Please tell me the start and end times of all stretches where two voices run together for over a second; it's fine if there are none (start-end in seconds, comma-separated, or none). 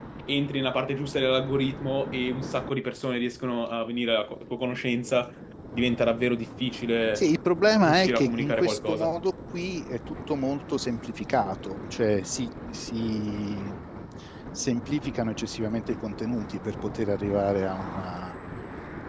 7.8-9.1